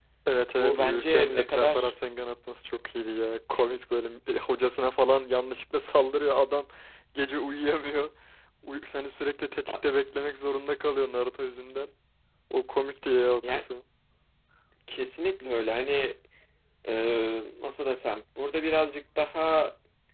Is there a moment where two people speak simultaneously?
Yes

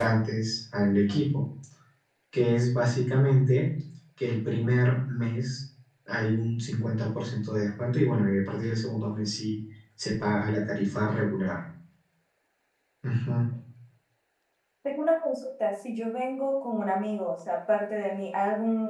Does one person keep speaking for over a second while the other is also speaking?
No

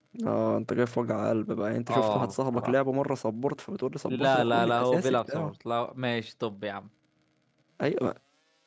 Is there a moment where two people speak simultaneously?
Yes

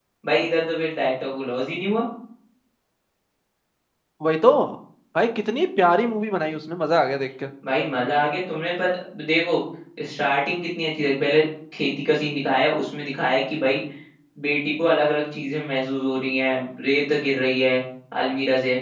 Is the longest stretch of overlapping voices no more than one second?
Yes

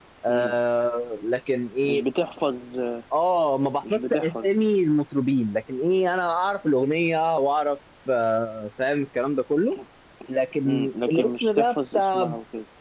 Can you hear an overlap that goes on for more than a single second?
Yes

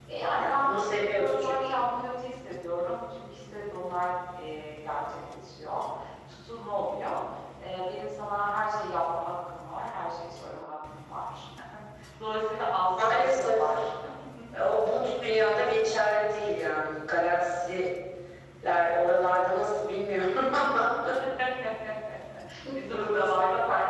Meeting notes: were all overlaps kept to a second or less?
No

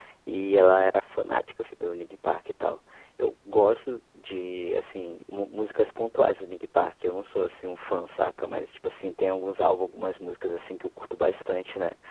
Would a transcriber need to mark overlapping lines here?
No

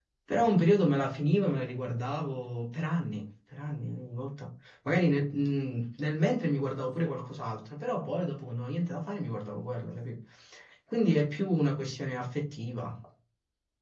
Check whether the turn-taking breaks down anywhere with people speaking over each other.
No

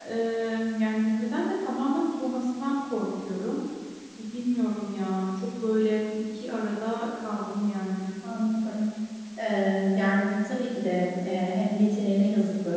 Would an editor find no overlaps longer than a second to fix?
Yes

